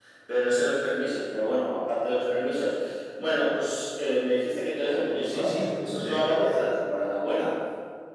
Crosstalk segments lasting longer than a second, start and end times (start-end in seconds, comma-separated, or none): 5.2-6.7